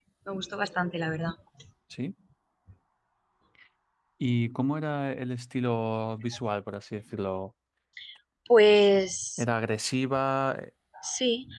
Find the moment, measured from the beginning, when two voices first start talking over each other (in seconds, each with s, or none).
none